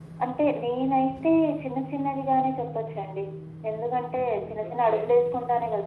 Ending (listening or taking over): listening